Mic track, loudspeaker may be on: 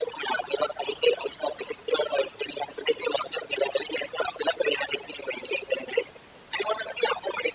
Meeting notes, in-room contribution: none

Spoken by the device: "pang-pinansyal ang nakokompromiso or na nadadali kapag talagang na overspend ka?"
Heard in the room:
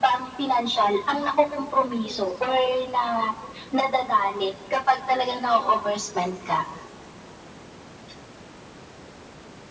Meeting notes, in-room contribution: none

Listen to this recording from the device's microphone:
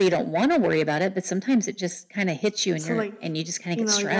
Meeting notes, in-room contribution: present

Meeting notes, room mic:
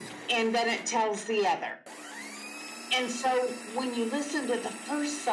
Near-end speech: none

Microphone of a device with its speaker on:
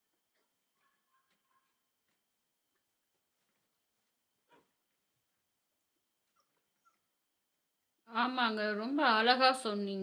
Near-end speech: present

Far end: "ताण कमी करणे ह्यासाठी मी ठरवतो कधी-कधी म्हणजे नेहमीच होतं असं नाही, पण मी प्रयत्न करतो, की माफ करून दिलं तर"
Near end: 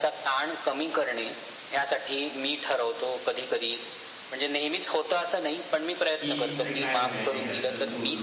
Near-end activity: present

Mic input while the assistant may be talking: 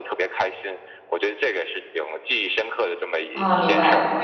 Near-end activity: present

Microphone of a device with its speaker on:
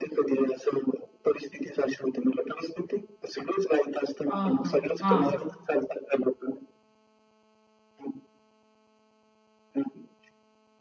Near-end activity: present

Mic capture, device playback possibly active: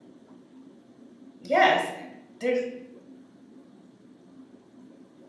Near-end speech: present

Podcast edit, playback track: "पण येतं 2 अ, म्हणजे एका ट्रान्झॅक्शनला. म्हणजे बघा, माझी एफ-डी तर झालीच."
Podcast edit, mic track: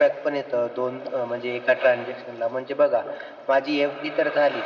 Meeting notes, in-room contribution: none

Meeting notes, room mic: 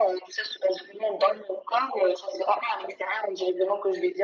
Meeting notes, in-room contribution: none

